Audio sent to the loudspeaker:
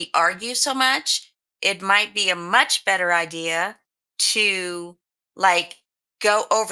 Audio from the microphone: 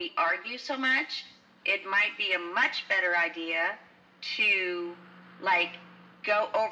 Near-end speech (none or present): none